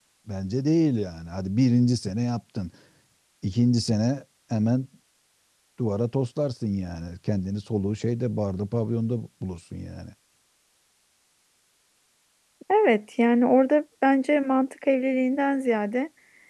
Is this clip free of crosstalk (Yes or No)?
Yes